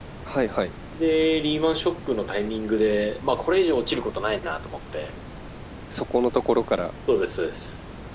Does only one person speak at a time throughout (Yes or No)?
Yes